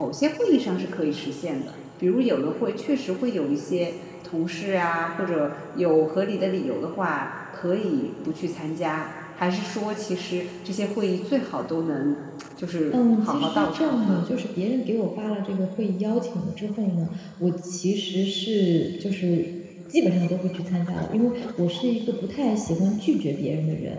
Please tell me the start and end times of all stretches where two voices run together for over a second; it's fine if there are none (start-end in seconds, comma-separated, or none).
12.9-14.2